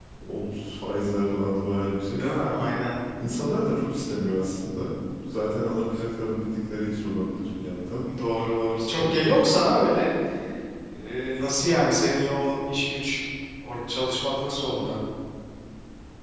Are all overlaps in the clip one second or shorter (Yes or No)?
Yes